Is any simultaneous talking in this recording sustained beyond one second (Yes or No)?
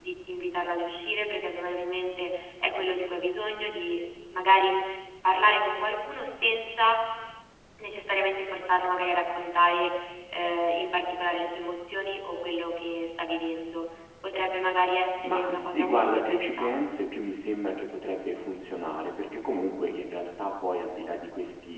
Yes